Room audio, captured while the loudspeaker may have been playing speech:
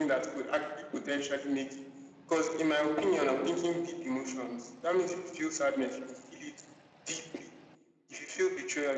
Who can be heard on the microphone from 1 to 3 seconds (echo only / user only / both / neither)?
echo only